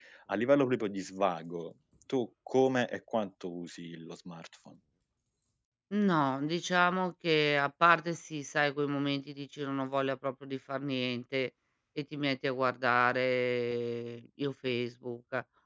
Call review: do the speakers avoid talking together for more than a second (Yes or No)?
Yes